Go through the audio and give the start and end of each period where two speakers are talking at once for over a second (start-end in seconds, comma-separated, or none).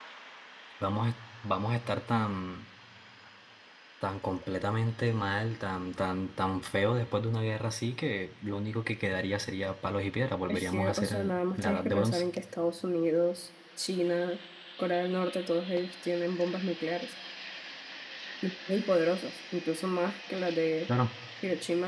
10.5-12.2